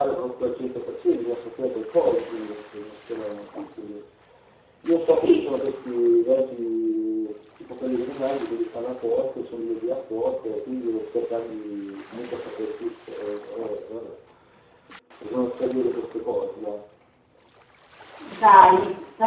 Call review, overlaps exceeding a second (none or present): none